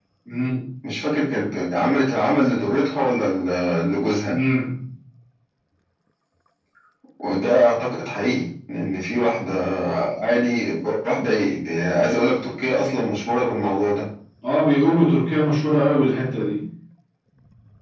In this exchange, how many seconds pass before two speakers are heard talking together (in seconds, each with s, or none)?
none